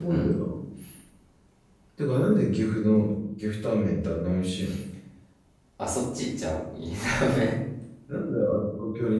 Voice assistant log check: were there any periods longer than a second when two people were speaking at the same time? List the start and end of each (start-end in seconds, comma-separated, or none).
none